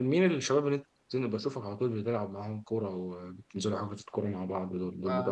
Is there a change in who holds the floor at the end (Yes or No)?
Yes